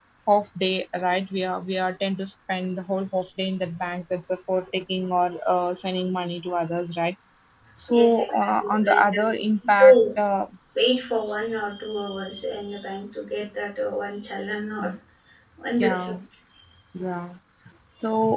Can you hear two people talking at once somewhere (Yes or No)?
Yes